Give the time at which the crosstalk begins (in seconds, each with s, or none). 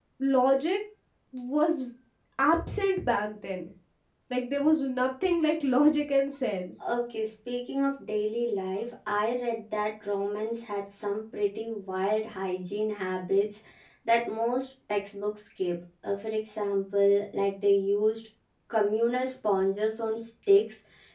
none